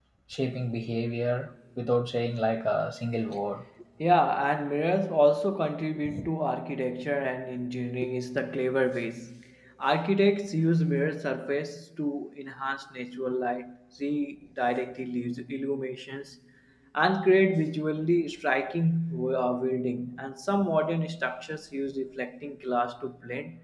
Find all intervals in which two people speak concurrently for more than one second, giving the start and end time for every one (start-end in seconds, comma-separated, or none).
none